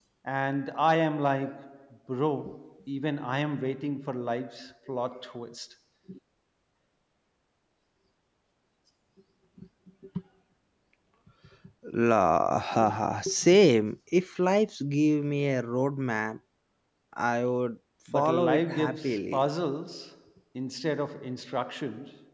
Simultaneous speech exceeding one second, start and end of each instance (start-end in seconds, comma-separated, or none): 18.1-19.5